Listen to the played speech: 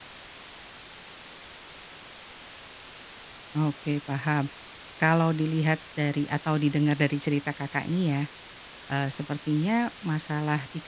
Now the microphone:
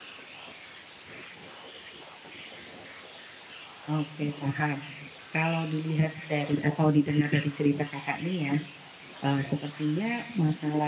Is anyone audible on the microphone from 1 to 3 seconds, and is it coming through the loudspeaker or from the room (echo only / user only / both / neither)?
neither